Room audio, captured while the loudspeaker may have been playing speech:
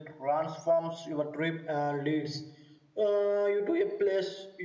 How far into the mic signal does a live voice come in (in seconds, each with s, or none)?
none